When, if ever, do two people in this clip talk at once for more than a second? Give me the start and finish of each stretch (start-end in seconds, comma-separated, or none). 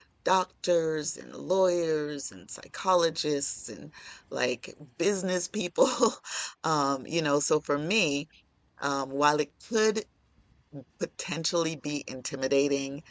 none